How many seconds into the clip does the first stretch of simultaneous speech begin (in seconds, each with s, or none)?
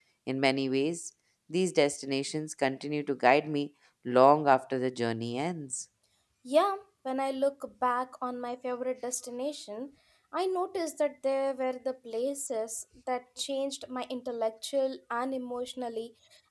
none